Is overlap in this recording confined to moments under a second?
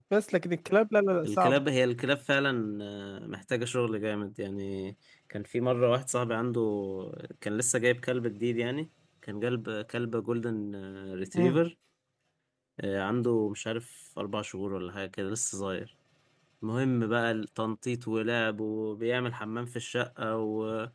Yes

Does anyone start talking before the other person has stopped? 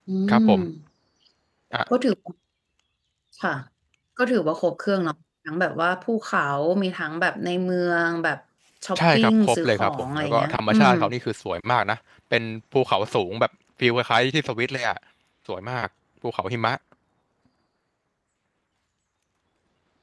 Yes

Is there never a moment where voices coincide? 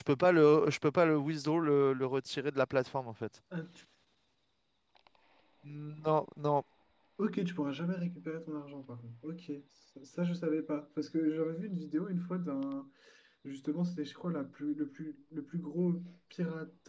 Yes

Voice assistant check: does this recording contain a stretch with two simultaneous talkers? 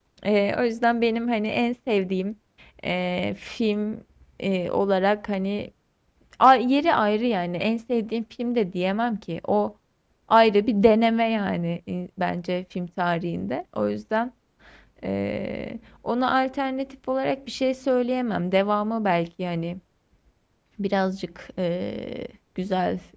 No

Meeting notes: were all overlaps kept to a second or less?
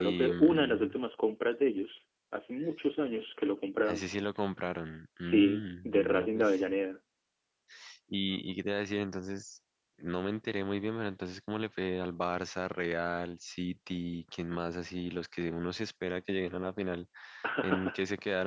No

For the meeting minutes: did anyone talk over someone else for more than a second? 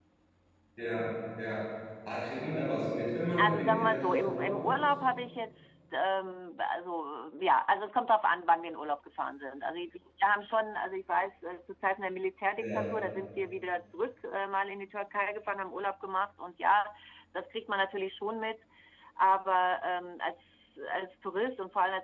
Yes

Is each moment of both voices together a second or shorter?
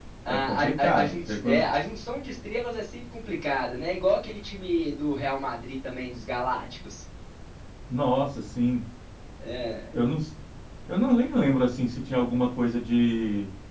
No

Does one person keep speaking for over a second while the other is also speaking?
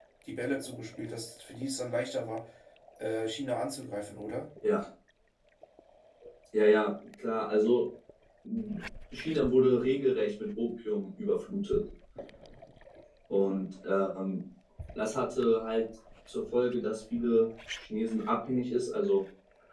No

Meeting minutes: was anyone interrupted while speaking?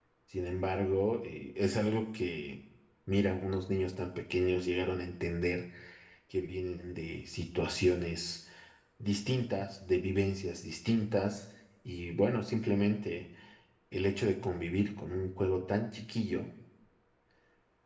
No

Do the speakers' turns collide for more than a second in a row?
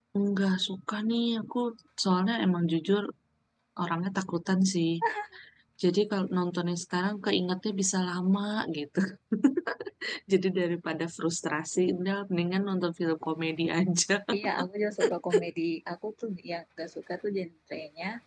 No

